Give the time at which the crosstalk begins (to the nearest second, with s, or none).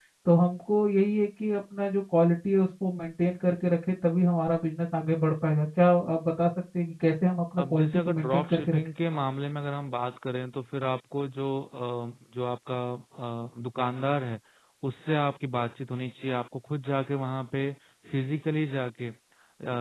8 s